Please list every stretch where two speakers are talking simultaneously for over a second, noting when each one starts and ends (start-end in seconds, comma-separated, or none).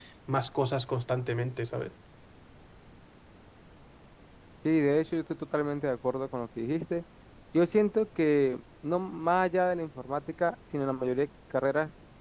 none